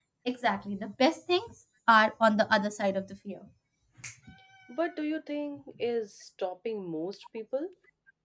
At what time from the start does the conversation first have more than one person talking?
none

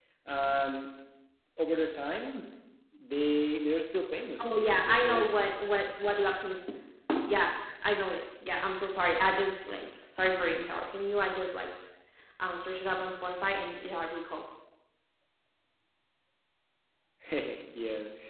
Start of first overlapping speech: 4.4 s

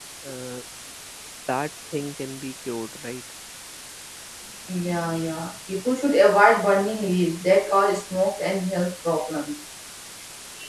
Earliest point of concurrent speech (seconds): none

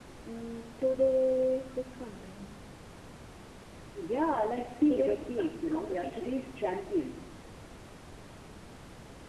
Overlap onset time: 4.9 s

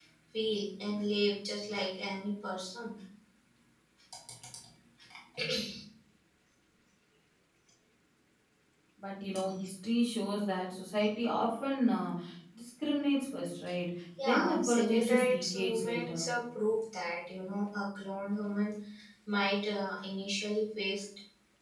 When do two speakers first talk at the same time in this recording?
14.2 s

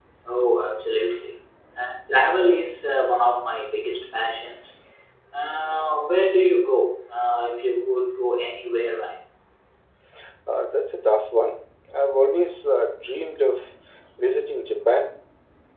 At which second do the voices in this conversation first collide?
none

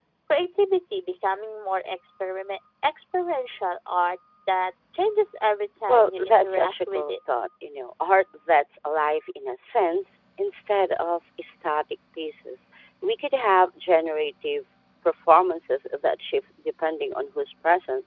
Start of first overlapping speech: 5.9 s

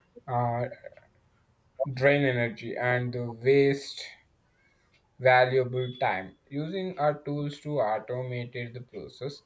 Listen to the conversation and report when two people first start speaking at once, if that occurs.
none

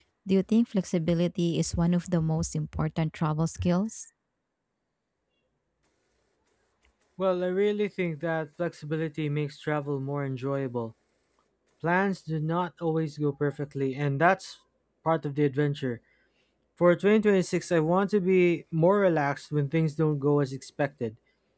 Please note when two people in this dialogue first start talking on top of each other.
none

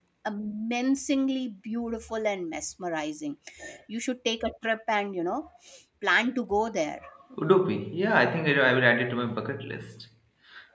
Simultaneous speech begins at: none

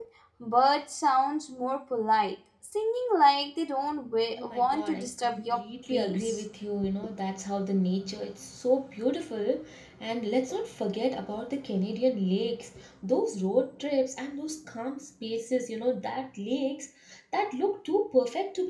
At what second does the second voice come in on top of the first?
4.3 s

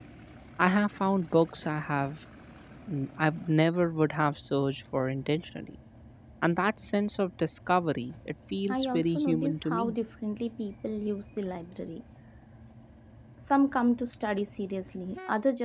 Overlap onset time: 8.6 s

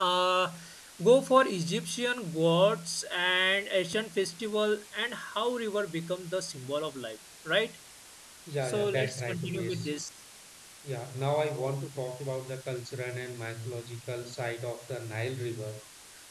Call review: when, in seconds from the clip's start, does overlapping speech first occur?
8.7 s

